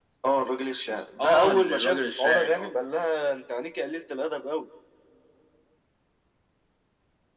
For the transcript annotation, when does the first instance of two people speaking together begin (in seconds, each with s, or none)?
1.2 s